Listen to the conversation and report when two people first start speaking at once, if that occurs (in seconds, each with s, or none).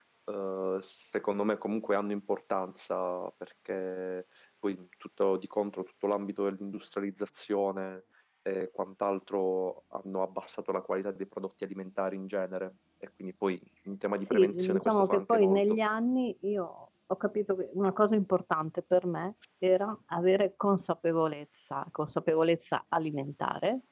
14.3 s